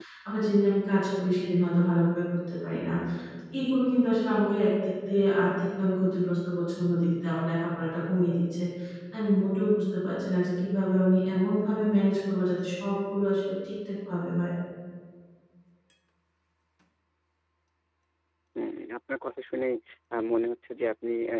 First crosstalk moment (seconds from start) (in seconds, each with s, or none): none